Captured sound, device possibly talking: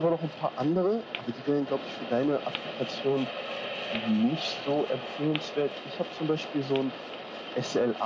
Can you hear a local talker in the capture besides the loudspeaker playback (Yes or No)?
No